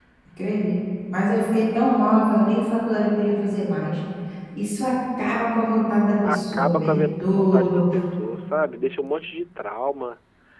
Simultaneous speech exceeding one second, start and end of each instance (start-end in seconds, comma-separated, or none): 6.2-7.8